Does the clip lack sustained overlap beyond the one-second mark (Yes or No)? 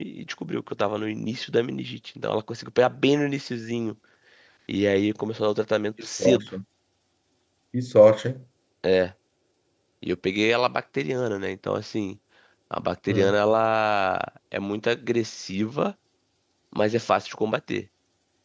Yes